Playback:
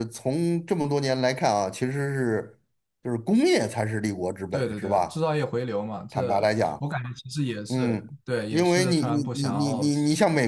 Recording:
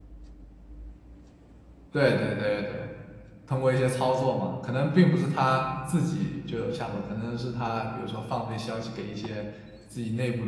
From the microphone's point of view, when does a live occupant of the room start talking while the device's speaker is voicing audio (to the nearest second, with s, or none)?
2 s